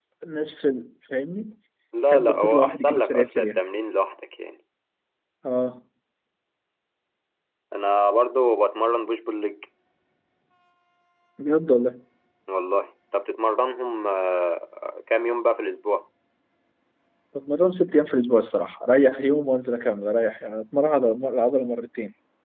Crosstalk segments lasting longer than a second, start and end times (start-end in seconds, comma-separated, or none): 2.1-3.5